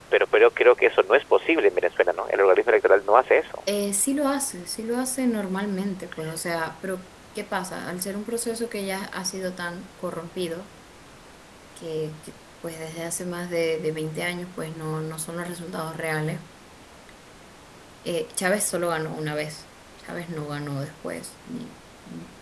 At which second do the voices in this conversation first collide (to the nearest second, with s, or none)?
none